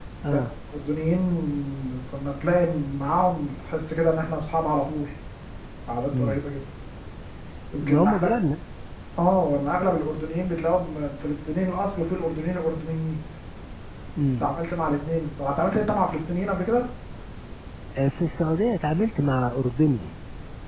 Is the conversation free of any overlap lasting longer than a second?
Yes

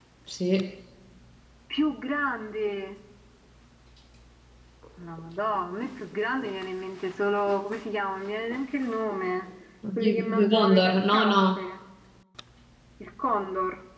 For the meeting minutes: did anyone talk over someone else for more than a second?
Yes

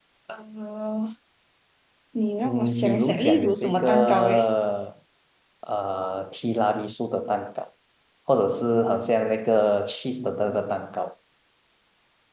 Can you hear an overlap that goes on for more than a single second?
Yes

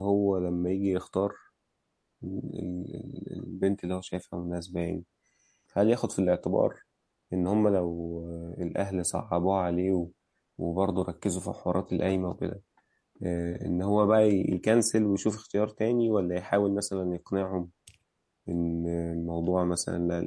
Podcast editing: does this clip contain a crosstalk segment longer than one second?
No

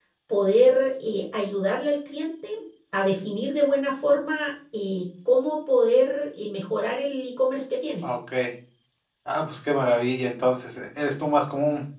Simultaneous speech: No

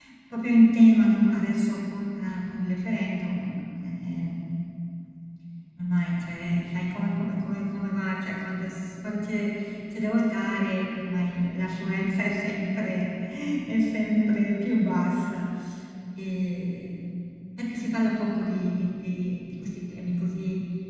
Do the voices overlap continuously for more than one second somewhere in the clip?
No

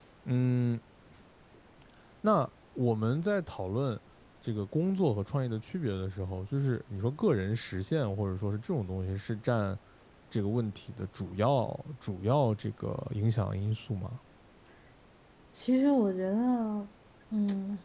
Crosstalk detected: No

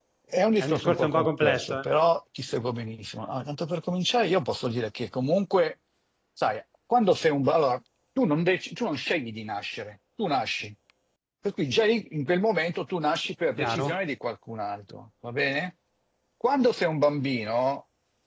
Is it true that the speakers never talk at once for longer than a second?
No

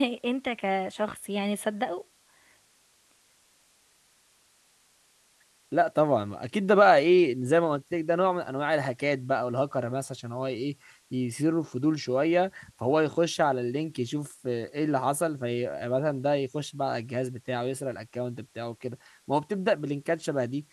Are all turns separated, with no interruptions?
Yes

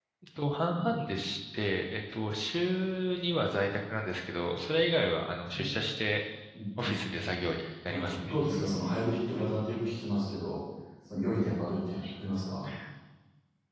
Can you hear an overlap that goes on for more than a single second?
No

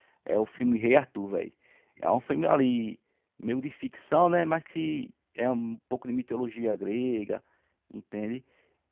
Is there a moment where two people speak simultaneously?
No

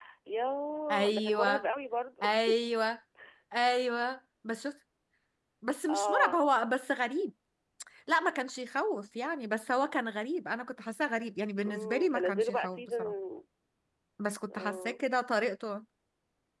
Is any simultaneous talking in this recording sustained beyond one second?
Yes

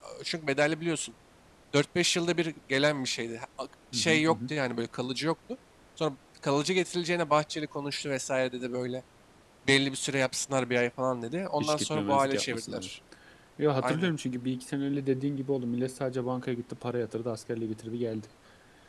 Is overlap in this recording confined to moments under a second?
No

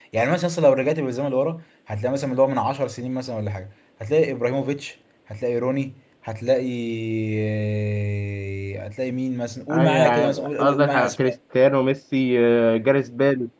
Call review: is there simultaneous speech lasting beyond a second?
Yes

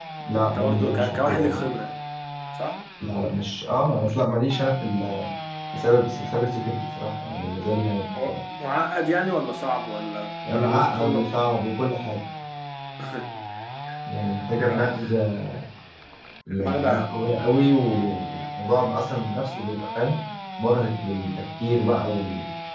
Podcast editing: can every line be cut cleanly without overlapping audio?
No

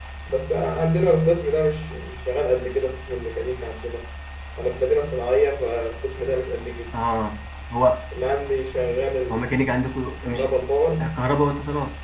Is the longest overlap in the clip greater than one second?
No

